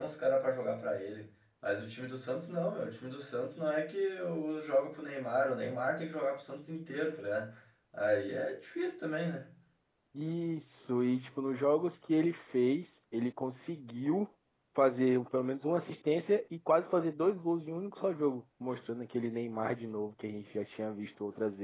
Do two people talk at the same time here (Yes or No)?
No